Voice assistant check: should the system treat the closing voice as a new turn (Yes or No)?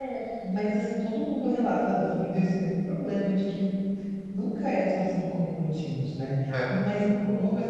No